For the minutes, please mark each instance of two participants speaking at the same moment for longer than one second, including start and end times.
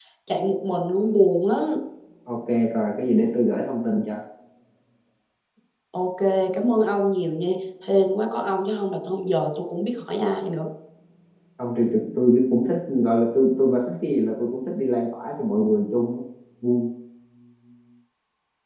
none

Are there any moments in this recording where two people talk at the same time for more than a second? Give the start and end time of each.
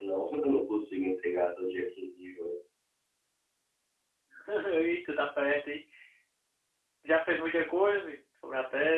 none

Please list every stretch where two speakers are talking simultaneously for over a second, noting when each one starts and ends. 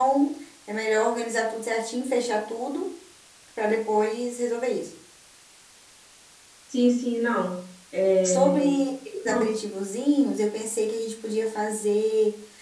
none

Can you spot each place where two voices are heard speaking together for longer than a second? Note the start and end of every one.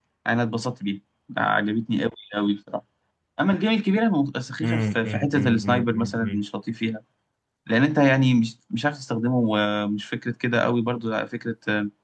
4.6-6.4

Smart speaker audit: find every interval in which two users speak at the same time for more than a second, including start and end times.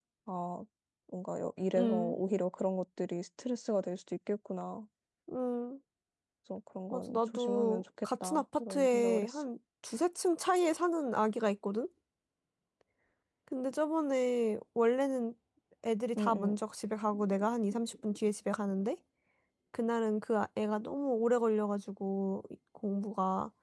6.9-9.4

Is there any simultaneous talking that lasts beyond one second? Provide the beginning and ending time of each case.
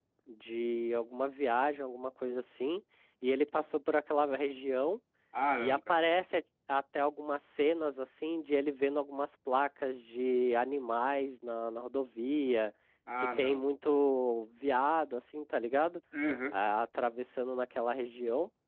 none

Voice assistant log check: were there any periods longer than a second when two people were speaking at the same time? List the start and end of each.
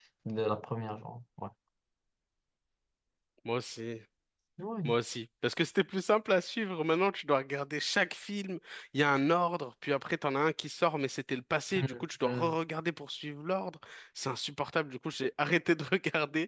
none

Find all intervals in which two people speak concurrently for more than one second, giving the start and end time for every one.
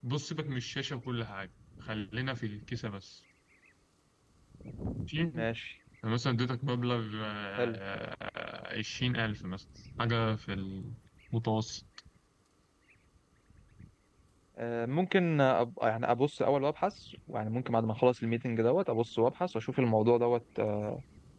none

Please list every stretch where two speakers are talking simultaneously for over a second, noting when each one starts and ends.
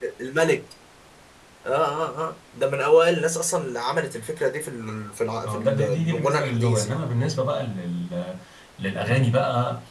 5.5-7.1

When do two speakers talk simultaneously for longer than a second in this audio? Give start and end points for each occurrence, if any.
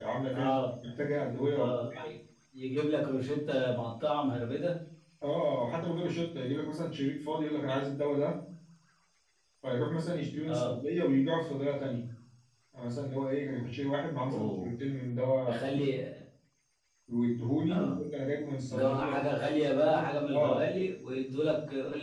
18.7-20.7

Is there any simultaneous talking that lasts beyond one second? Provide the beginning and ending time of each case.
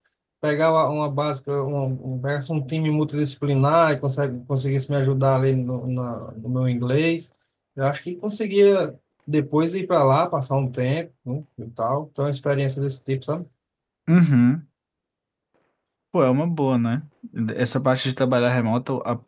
none

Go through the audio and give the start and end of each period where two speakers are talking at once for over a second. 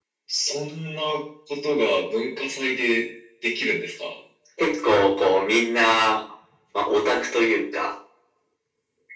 none

